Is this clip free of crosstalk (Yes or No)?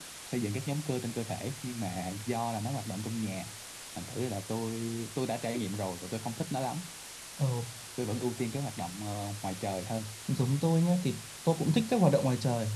Yes